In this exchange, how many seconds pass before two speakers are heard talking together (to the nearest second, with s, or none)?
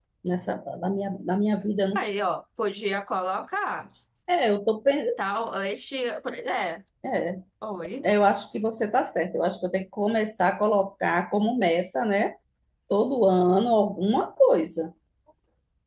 none